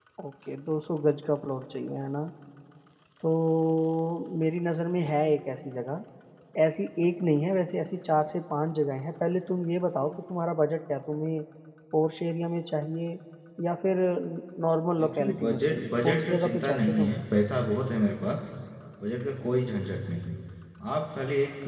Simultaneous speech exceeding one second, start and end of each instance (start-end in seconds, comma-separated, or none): 15.0-17.1